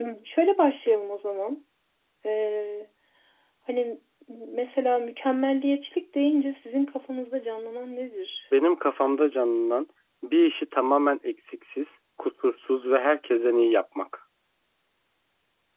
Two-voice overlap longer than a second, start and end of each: none

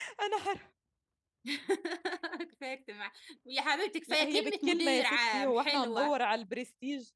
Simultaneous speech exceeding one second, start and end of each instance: 4.1-6.2

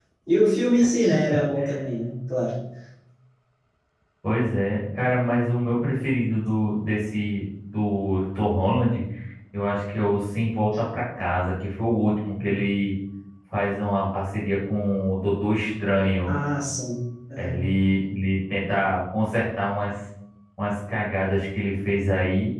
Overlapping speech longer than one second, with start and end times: none

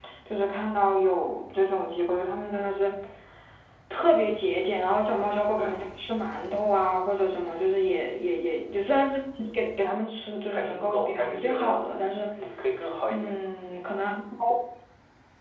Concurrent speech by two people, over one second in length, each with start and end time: 10.5-11.8

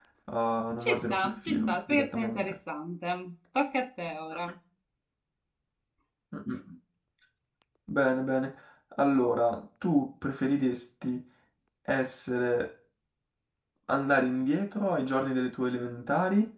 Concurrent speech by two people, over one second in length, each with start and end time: 0.8-2.5

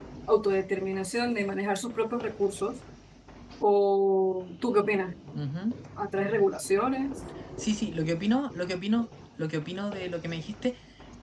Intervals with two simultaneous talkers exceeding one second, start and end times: none

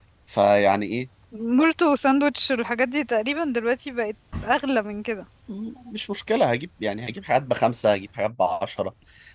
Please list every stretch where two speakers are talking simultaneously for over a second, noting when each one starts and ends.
none

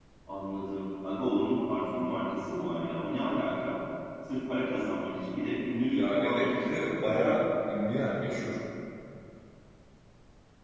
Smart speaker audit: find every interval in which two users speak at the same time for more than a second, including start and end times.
5.9-7.4

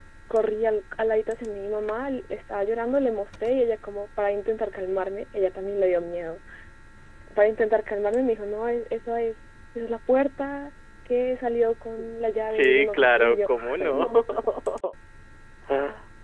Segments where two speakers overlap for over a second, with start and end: 12.5-14.1

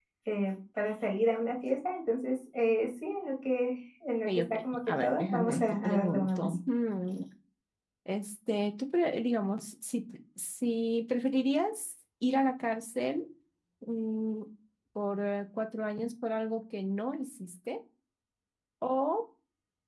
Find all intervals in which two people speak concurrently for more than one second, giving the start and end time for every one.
4.3-6.5

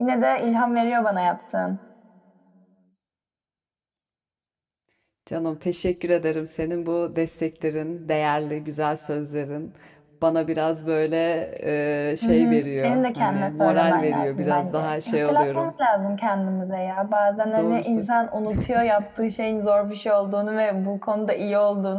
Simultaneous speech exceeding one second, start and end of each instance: 12.2-15.7

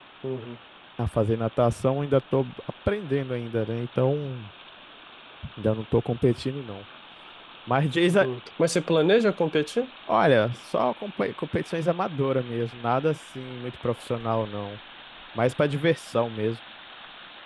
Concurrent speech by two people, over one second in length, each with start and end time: none

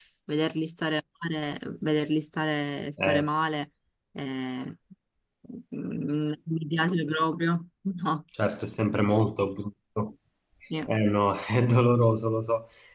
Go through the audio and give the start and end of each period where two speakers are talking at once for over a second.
none

